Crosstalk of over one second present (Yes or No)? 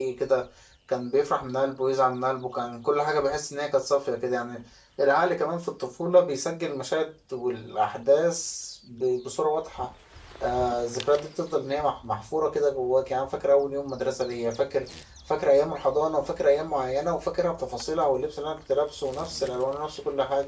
No